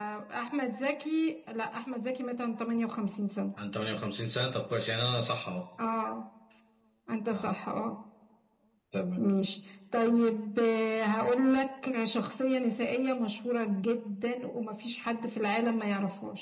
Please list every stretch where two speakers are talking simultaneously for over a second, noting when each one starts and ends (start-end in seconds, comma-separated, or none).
none